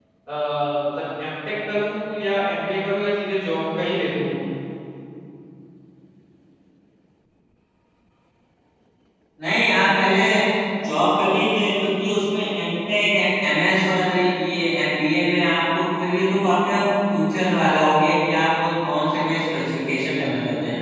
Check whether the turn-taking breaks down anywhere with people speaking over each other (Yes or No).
No